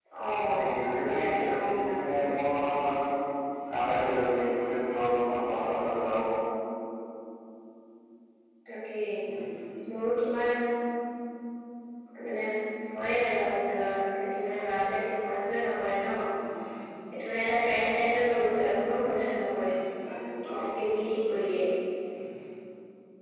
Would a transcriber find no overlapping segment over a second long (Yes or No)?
No